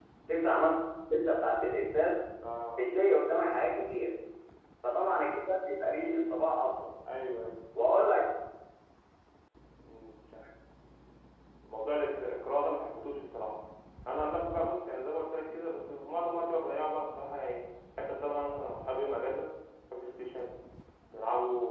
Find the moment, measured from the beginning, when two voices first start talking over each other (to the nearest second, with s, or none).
none